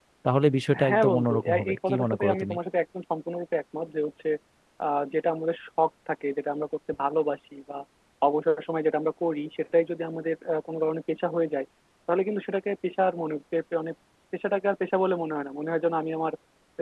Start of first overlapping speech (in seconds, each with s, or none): 0.9 s